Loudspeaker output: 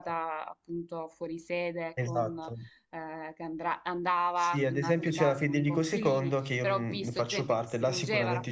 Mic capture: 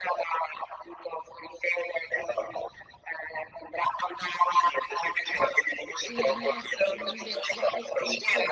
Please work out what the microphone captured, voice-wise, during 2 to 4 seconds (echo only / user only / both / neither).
echo only